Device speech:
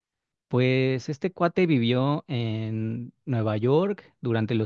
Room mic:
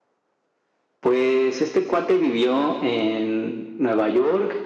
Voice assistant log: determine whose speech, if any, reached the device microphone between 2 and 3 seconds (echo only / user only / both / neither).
echo only